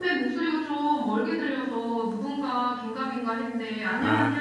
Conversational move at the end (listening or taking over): taking over